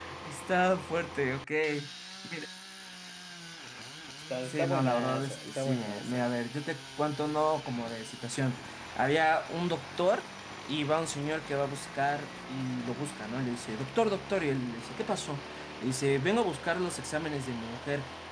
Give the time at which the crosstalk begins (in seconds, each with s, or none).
4.5 s